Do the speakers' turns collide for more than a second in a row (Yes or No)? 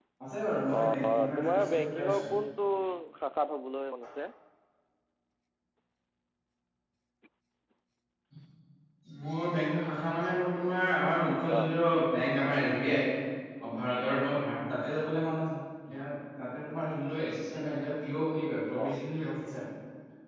Yes